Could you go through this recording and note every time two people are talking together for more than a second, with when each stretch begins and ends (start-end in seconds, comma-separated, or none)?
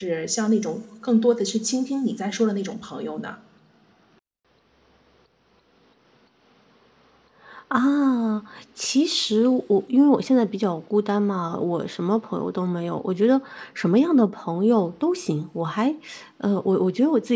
none